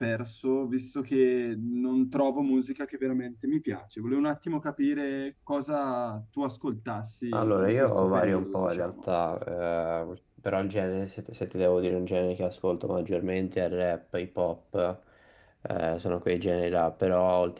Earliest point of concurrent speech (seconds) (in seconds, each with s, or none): 7.3 s